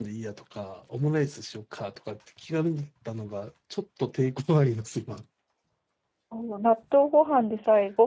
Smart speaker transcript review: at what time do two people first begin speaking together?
none

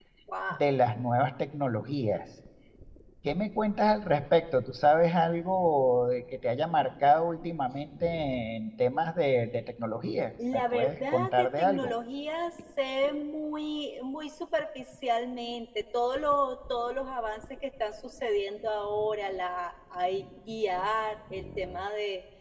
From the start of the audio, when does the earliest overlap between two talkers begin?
10.4 s

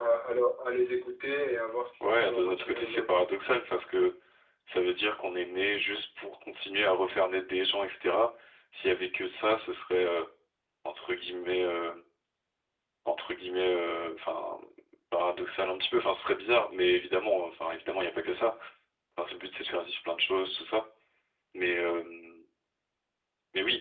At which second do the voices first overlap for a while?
2.0 s

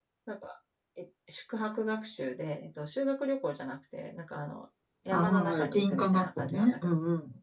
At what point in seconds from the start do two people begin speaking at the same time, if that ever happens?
5.1 s

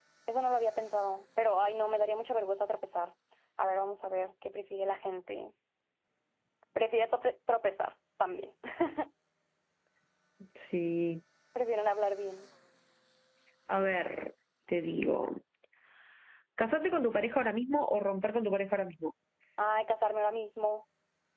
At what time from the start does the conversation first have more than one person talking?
none

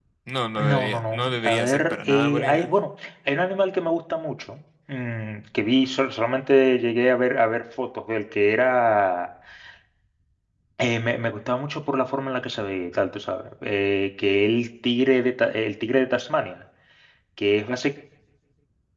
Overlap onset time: 0.6 s

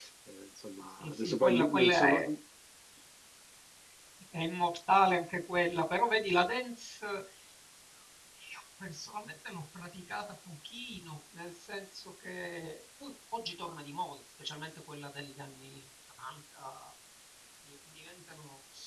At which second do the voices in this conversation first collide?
1.0 s

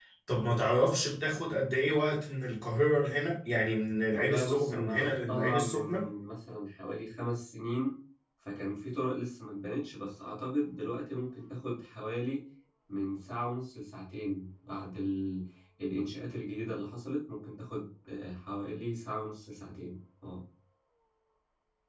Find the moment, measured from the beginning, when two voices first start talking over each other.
4.1 s

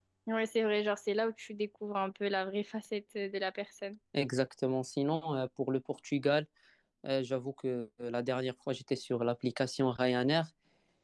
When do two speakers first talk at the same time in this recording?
none

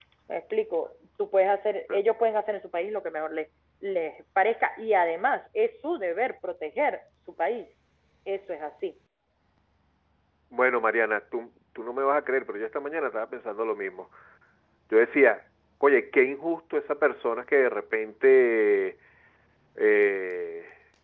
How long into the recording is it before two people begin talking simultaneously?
none

